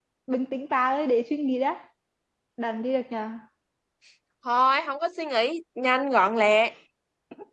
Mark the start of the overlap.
none

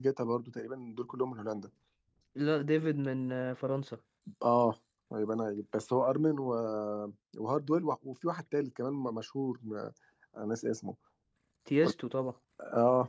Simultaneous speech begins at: none

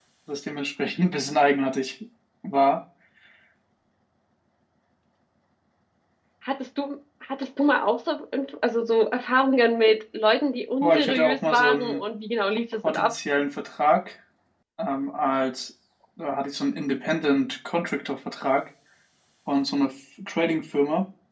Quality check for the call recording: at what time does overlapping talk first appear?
10.8 s

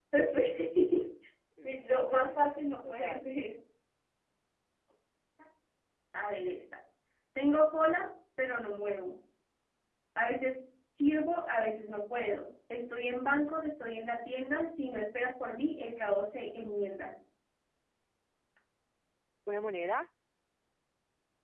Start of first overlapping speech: 1.6 s

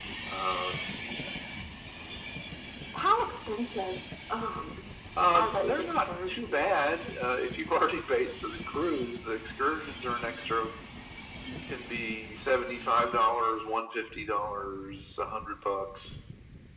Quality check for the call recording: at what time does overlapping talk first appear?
5.3 s

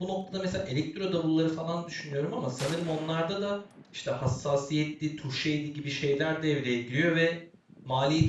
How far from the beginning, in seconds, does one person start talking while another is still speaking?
none

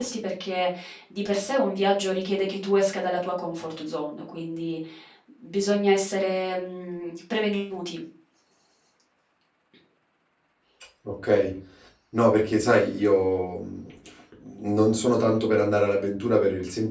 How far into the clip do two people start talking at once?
none

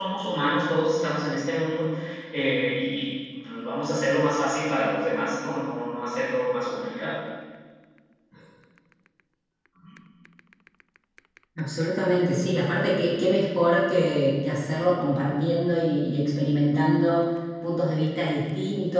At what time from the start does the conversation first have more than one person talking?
none

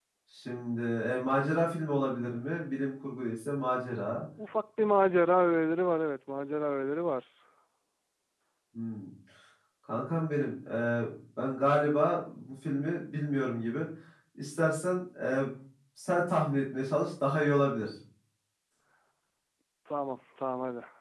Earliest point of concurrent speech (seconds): none

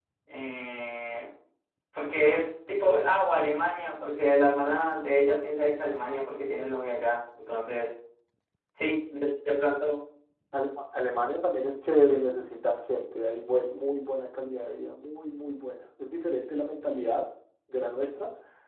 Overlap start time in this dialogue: none

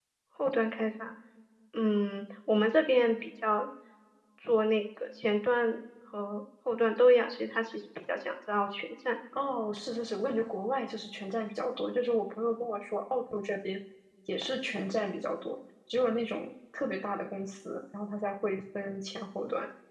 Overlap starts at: none

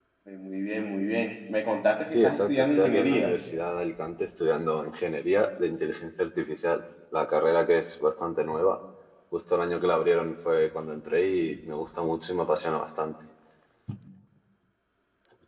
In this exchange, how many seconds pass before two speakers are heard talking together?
2.1 s

